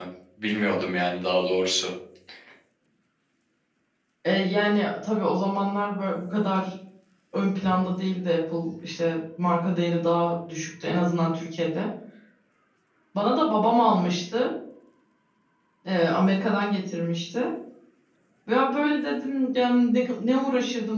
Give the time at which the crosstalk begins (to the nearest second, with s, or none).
none